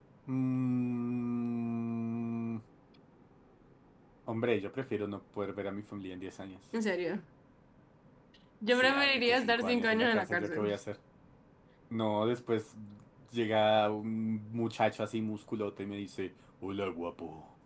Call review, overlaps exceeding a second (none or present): present